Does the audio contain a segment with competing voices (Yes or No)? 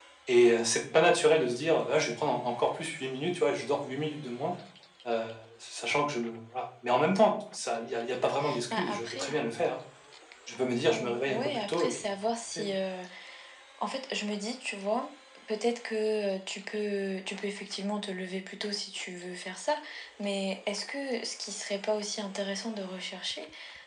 Yes